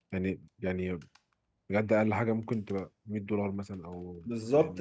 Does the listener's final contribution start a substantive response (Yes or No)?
Yes